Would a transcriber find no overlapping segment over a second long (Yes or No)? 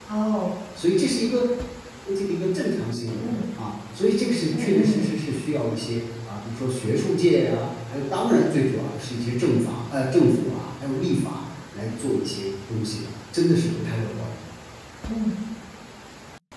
Yes